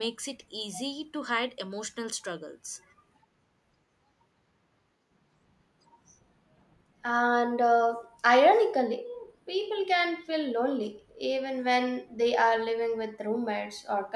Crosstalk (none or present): none